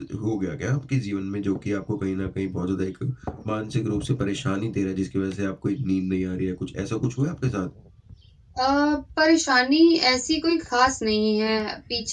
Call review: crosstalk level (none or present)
none